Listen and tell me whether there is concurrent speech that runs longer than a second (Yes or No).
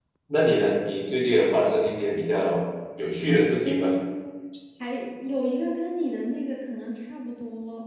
No